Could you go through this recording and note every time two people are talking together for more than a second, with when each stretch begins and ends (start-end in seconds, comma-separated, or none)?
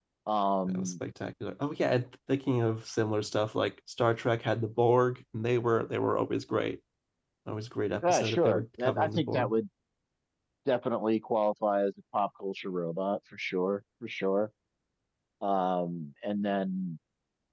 8.1-9.5